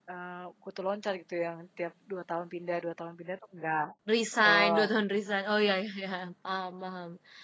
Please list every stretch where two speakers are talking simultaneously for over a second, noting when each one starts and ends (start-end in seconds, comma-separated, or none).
none